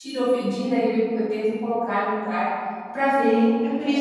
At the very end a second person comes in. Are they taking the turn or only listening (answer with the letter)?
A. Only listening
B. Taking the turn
B